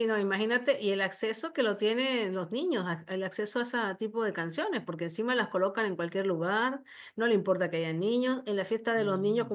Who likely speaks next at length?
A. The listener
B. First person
B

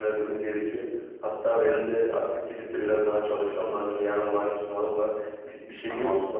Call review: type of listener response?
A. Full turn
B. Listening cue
A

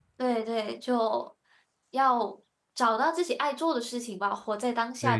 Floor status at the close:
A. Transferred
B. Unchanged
A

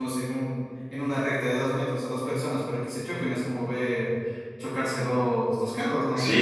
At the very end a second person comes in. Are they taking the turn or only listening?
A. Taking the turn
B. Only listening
A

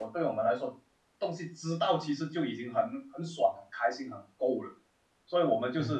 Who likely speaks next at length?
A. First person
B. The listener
A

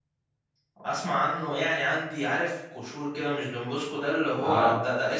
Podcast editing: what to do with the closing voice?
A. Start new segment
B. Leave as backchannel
B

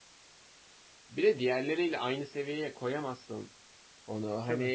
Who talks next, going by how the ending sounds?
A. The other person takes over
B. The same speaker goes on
B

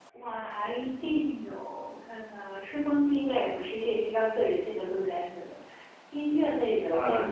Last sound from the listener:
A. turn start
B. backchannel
A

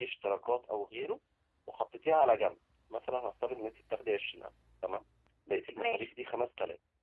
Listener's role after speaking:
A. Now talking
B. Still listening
B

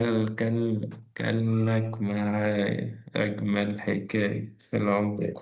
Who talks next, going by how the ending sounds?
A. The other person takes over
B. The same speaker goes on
A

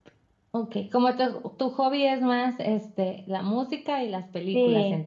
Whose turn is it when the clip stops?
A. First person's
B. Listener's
B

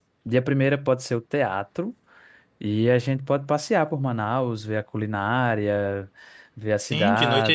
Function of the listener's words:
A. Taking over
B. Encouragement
A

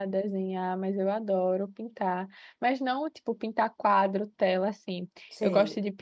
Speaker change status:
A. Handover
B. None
B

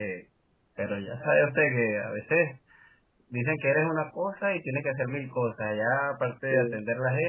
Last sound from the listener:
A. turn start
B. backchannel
B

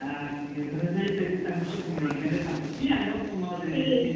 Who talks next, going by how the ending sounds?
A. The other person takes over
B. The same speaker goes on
B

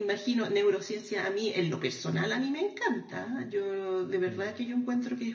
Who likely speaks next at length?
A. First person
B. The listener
A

